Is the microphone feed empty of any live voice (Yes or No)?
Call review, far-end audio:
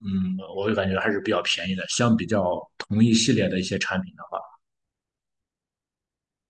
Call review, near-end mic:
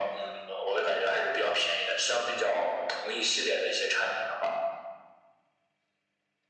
Yes